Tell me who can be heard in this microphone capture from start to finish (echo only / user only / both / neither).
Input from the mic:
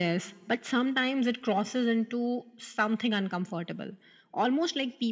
echo only